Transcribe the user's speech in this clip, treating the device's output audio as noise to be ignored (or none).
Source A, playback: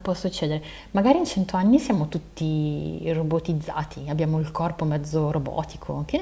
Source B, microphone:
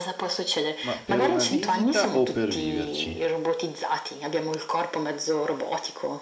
Ma per una visita o per viverci?